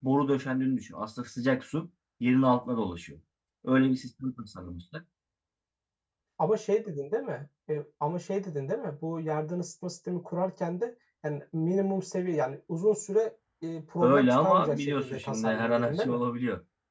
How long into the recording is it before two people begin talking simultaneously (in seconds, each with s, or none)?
14.0 s